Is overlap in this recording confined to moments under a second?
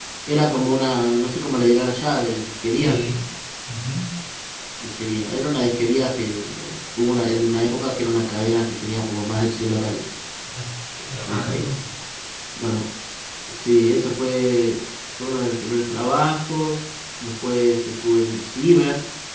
Yes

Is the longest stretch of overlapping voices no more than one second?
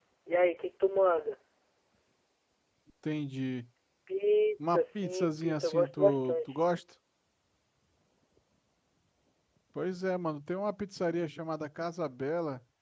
No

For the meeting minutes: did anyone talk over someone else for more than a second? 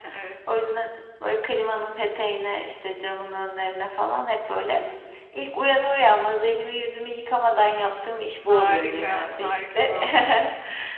Yes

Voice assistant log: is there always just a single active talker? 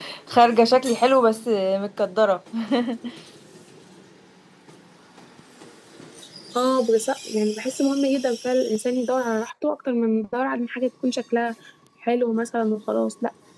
Yes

